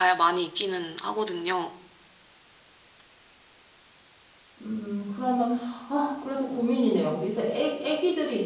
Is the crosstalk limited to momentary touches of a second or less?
Yes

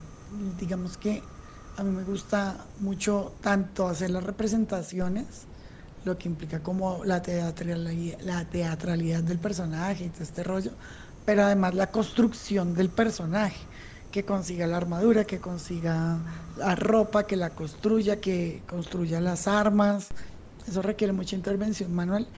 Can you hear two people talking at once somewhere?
No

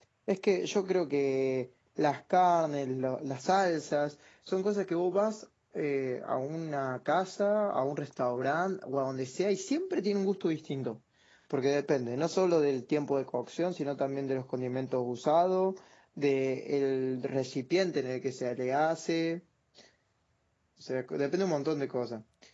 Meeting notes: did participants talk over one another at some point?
No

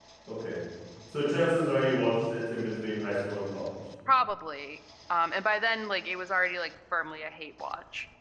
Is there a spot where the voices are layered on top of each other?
No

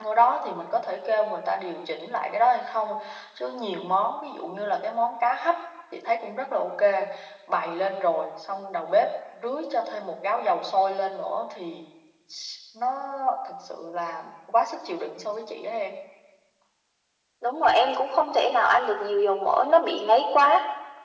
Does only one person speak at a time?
Yes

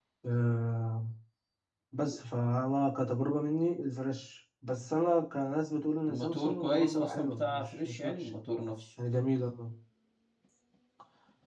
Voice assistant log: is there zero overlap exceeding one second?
No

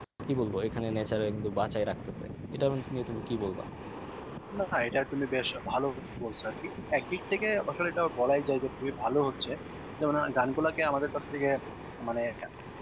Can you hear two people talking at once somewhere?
No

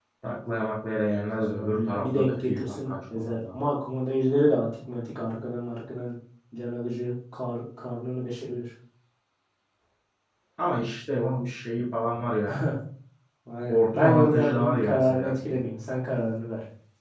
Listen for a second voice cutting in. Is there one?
Yes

